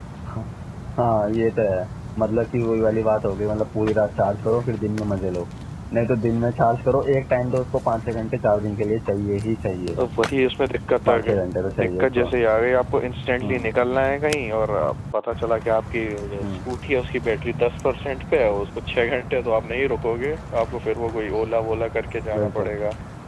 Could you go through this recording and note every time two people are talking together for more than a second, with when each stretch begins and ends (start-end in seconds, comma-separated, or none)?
none